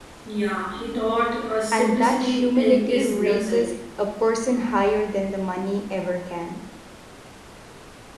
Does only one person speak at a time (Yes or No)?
No